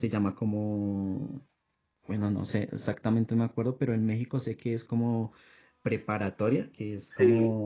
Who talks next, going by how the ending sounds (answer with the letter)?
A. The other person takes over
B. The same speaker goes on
B